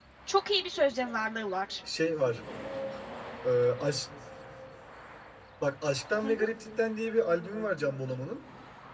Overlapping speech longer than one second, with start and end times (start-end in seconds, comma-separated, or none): none